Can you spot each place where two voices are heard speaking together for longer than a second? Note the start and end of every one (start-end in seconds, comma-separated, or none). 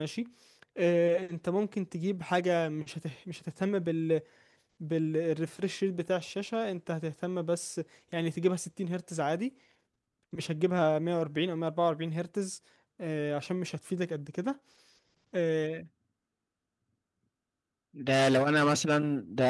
none